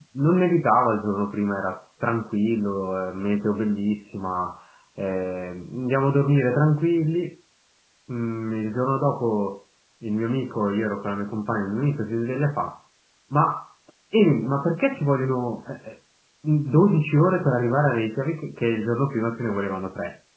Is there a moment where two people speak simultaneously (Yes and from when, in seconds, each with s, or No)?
No